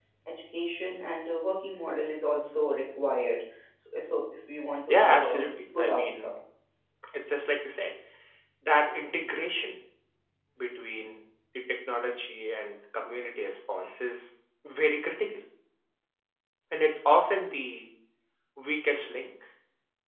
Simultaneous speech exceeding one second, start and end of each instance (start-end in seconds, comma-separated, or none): 4.9-6.3